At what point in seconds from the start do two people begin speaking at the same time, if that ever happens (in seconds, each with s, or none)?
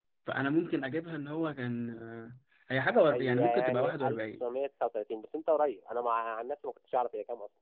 3.1 s